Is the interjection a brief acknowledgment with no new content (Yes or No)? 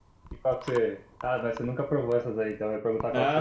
No